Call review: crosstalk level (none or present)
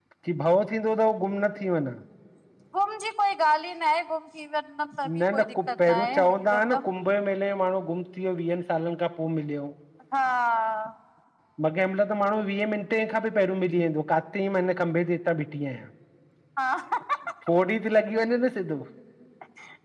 present